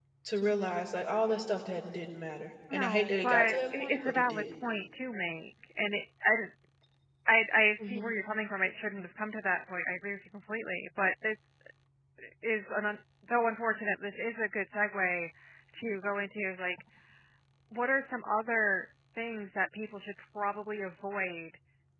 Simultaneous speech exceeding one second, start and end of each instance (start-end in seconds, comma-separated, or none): 2.7-4.4